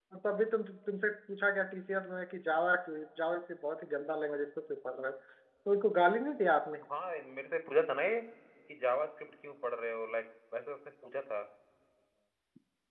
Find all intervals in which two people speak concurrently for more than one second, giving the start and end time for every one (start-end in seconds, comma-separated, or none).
none